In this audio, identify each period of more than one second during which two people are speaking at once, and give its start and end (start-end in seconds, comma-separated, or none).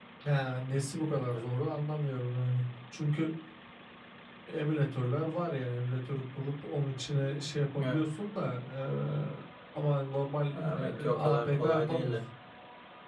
10.6-12.2